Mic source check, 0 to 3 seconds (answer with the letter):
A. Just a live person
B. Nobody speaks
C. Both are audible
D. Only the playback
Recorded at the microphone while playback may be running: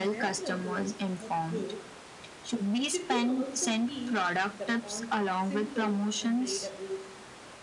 C